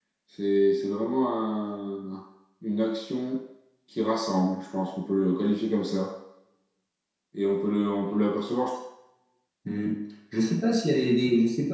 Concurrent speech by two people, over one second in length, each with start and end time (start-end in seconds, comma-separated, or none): none